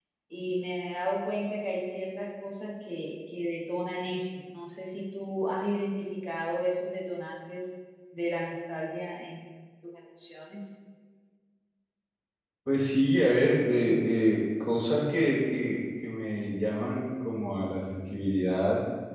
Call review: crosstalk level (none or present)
none